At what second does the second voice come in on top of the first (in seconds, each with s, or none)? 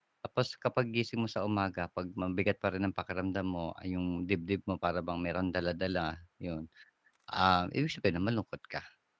none